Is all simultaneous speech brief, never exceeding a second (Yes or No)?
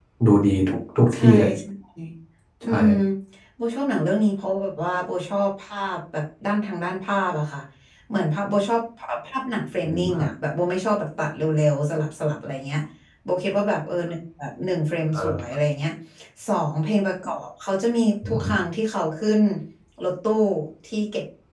Yes